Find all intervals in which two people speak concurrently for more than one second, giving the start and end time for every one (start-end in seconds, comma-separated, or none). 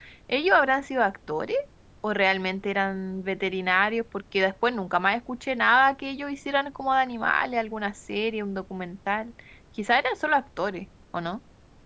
none